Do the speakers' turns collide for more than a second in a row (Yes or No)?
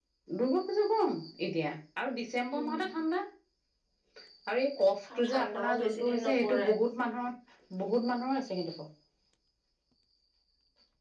Yes